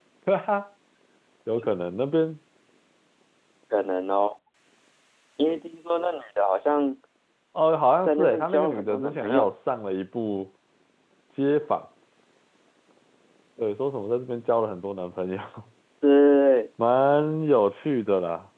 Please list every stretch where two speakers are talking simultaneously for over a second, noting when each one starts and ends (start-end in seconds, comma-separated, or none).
8.0-9.5